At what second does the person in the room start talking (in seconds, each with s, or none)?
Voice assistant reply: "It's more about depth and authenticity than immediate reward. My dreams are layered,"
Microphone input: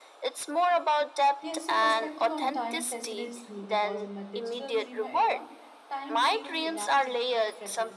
1.4 s